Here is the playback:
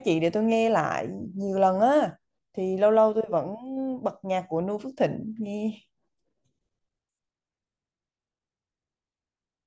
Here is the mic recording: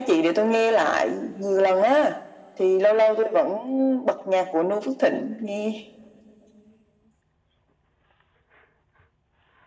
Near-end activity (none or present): none